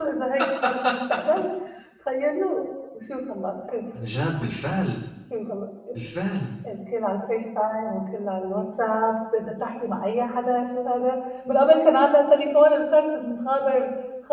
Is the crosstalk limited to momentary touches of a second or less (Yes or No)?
Yes